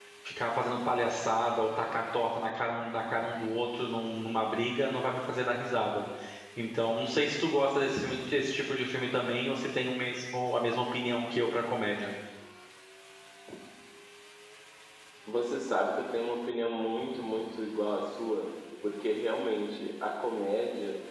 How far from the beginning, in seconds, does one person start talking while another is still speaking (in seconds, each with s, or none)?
none